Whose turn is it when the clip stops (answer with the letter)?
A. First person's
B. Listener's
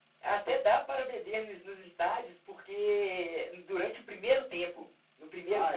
A